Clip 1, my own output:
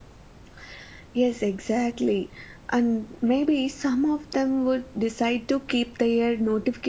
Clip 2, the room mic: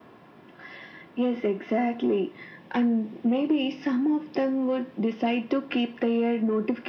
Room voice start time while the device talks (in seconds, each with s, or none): none